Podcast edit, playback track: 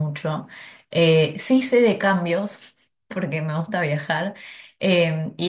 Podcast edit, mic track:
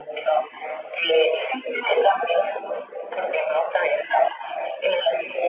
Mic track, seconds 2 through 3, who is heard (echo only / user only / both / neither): echo only